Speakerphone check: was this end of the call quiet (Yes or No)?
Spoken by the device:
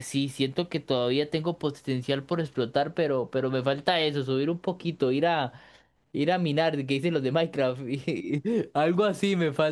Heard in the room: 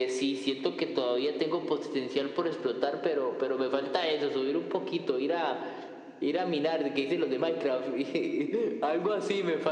Yes